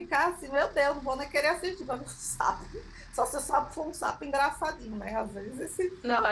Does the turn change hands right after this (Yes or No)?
Yes